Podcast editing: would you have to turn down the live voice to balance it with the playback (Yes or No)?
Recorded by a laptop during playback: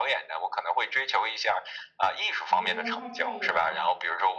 No